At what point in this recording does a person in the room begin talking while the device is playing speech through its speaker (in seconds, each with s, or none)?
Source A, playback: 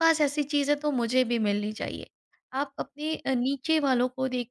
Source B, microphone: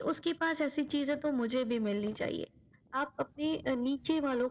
none